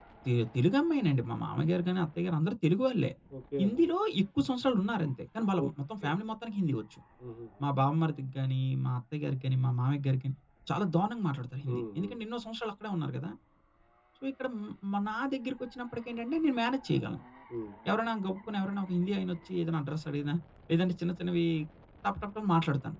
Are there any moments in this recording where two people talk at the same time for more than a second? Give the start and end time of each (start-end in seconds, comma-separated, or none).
none